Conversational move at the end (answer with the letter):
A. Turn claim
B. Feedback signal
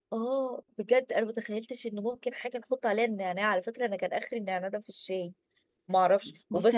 A